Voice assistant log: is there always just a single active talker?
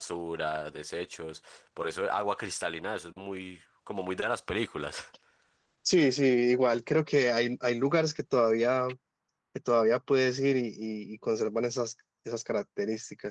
Yes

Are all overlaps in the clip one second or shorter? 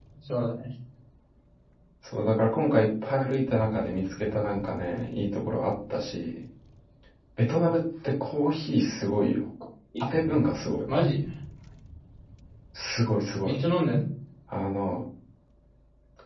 Yes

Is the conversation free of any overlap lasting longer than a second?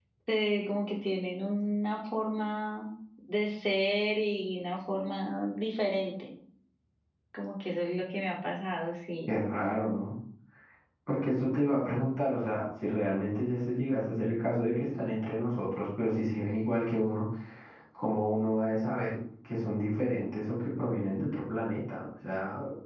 Yes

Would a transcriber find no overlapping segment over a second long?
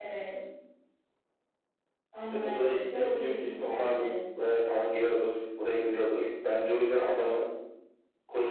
No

